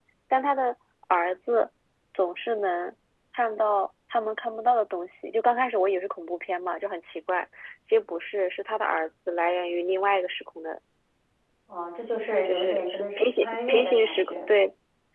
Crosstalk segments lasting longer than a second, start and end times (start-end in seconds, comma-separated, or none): 12.4-14.3